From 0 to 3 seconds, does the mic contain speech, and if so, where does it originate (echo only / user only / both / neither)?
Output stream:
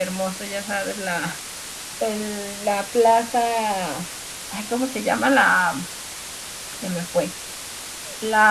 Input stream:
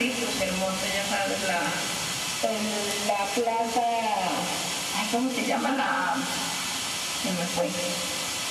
echo only